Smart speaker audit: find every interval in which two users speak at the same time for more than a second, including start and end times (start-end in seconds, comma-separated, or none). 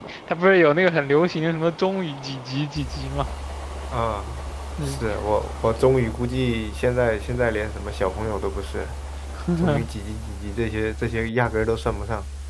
none